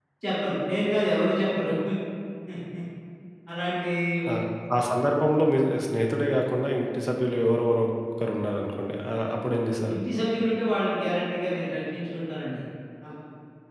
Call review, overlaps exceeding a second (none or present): none